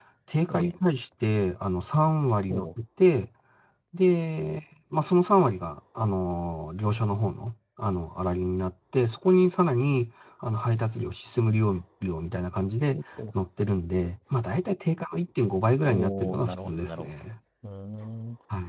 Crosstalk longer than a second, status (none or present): present